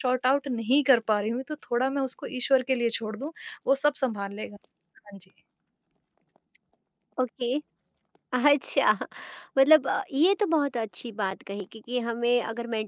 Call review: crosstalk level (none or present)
none